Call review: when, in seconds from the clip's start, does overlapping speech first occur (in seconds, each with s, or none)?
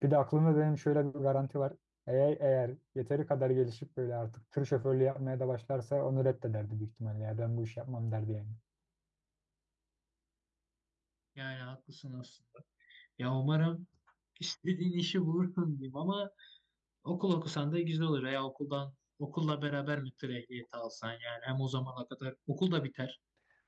none